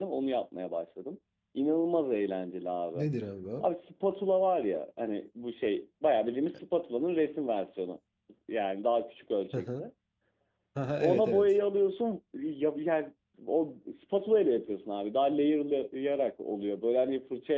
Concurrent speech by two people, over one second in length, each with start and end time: none

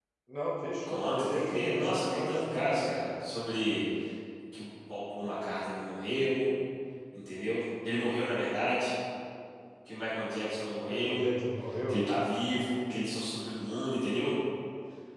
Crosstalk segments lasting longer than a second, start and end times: 0.8-2.6

